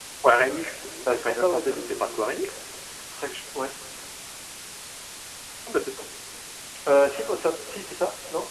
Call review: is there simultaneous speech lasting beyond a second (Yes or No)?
Yes